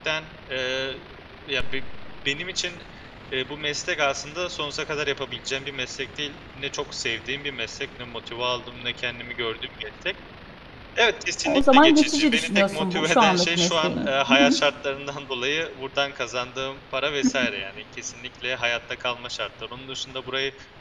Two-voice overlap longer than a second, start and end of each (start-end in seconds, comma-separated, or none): 11.4-14.6